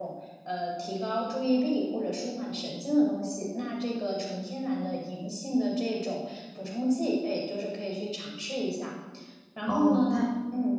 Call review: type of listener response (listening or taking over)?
taking over